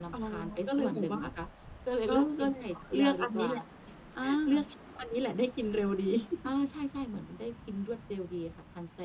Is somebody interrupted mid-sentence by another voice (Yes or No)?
Yes